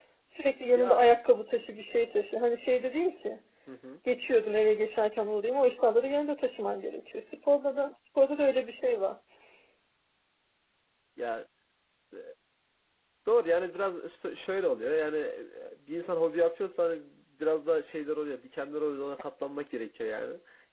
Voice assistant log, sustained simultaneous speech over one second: none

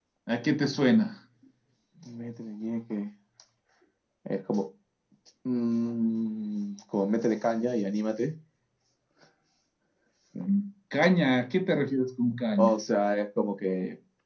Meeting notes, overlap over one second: none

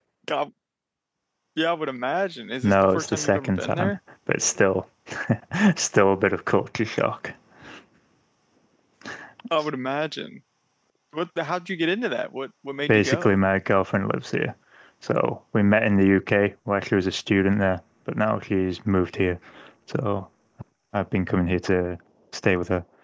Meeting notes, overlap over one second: present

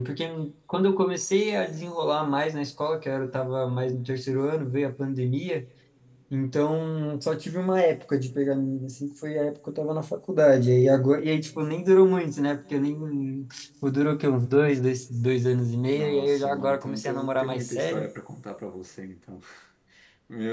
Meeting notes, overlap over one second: present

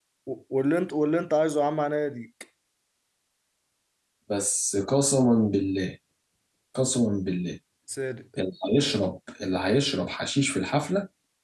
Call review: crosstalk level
none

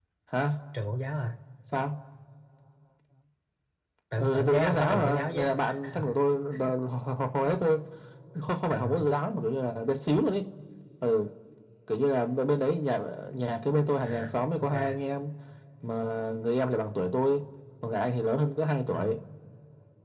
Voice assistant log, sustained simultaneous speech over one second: present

